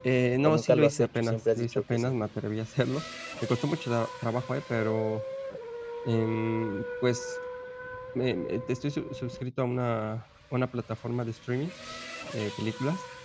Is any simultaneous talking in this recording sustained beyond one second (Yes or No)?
Yes